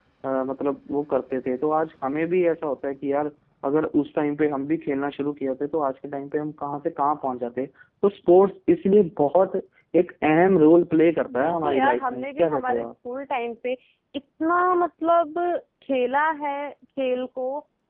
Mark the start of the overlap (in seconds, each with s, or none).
11.3 s